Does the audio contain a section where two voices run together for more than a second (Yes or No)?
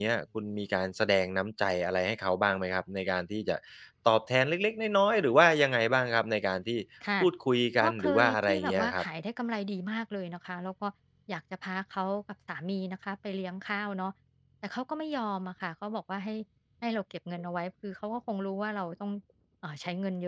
Yes